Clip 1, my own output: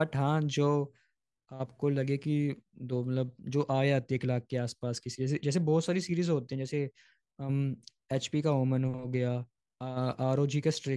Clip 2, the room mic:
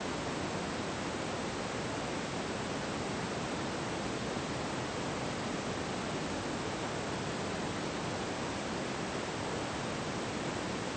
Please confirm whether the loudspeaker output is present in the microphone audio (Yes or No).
No